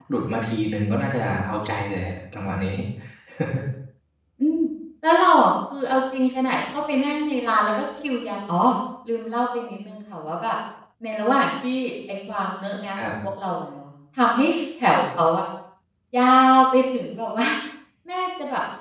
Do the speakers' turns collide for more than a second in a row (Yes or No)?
No